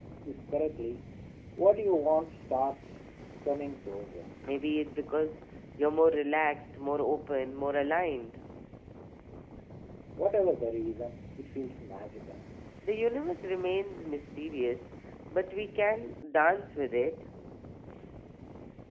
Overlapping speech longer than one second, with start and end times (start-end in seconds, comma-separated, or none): none